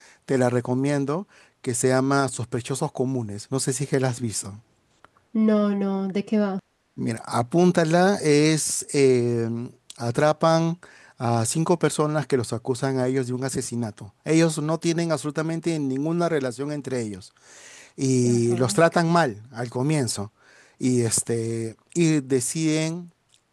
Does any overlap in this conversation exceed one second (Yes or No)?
No